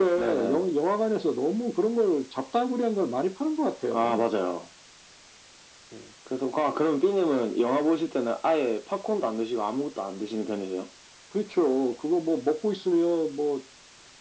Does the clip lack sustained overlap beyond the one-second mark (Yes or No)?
Yes